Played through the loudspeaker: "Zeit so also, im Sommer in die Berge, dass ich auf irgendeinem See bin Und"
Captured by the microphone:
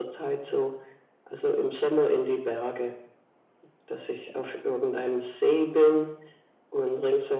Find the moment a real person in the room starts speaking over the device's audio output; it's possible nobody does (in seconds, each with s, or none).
none